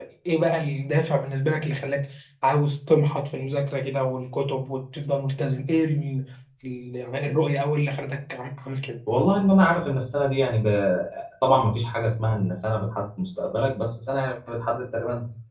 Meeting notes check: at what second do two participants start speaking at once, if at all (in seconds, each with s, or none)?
none